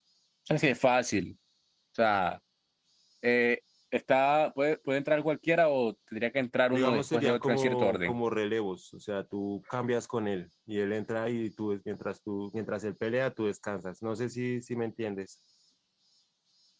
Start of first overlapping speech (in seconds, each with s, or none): 6.7 s